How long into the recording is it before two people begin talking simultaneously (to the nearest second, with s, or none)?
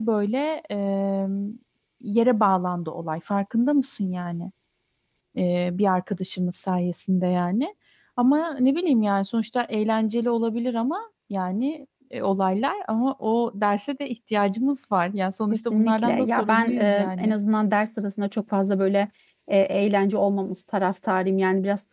16 s